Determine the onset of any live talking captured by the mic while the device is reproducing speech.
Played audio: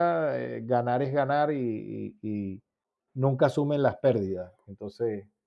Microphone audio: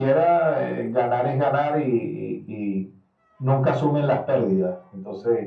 none

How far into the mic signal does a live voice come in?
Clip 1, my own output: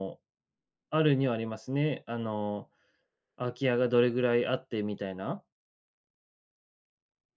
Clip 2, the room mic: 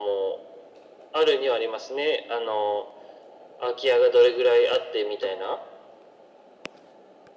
none

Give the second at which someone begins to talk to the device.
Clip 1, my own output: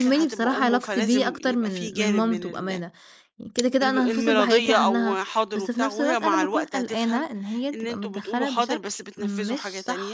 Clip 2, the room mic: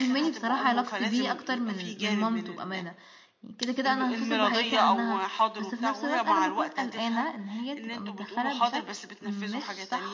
none

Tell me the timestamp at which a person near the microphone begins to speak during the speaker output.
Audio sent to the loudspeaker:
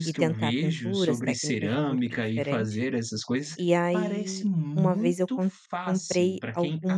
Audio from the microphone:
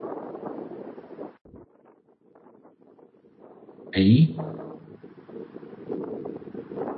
3.9 s

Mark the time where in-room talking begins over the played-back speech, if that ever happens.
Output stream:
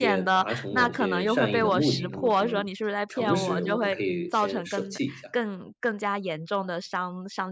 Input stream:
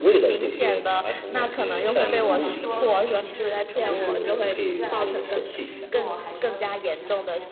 1.7 s

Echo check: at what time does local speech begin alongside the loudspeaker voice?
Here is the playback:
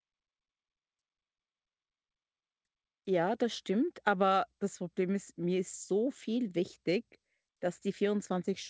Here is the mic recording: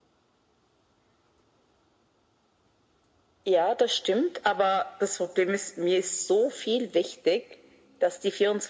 none

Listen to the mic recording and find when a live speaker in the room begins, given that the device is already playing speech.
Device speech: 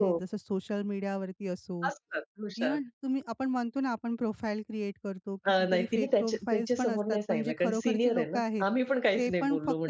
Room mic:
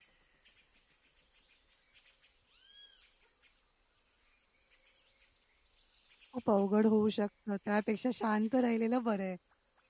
6.3 s

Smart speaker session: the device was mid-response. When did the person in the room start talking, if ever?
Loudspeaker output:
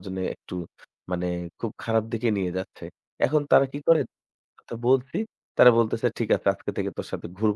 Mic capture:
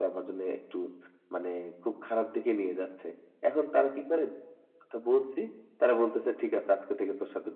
none

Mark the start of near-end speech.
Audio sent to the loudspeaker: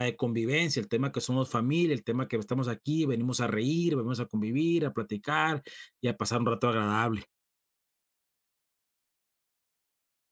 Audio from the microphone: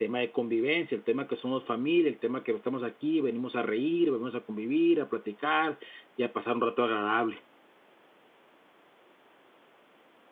none

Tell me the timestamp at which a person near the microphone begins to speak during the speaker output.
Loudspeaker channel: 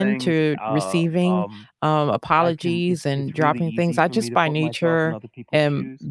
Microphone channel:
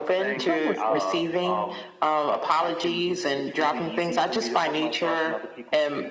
0.4 s

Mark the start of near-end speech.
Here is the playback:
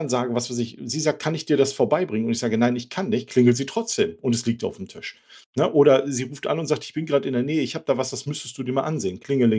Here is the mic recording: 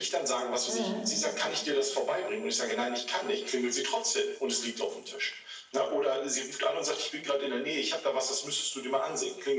0.7 s

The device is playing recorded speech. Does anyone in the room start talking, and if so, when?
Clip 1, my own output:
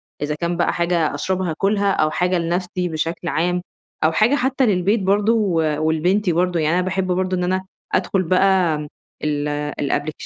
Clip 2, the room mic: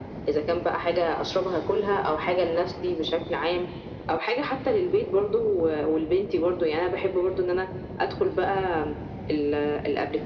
none

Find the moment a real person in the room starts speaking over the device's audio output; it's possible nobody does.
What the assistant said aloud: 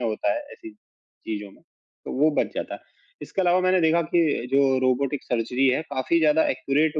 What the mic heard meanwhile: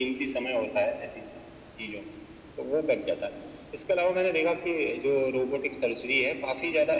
none

